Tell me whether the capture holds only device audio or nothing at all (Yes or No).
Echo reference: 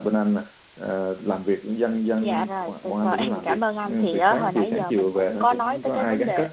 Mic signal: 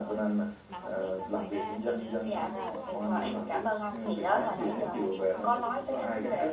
No